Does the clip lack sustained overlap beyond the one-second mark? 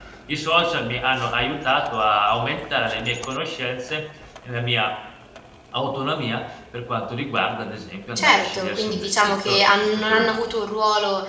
No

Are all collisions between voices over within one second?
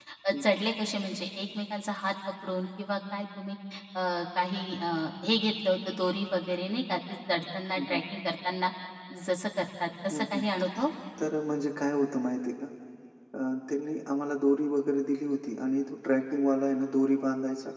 Yes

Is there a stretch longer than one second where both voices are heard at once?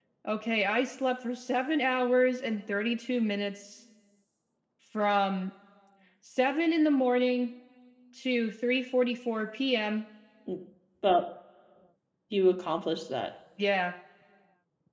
No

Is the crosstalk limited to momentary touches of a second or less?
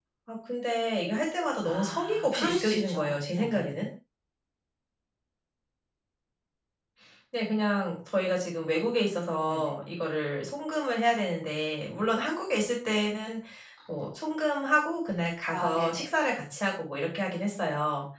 No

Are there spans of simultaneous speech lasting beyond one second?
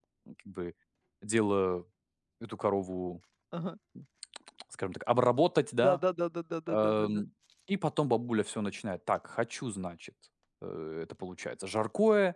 No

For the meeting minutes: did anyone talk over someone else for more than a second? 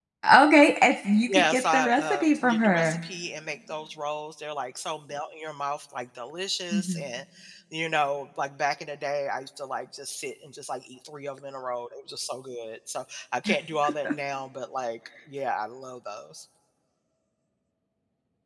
Yes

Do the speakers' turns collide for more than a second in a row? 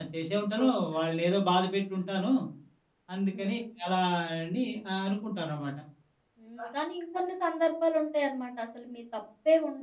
No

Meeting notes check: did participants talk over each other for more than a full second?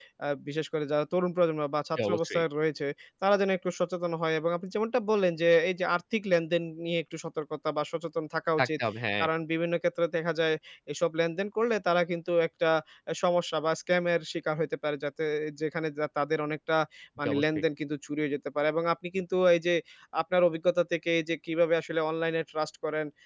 No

